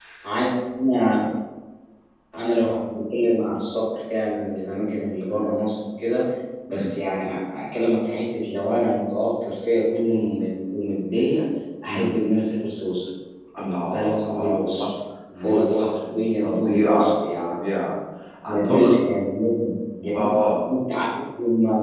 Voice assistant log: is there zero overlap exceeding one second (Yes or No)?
No